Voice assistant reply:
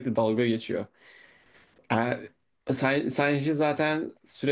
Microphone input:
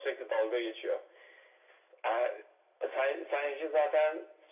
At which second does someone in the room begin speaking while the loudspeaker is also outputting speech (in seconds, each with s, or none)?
none